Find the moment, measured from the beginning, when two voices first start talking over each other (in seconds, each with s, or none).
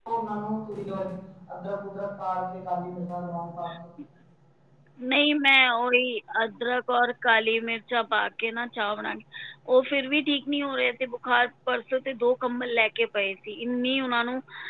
none